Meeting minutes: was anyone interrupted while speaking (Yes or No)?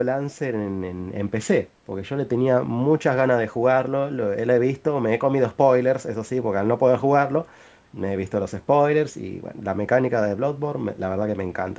No